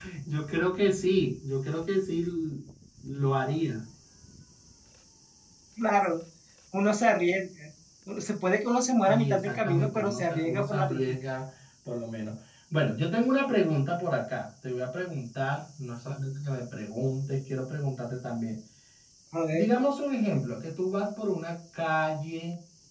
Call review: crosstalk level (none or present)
present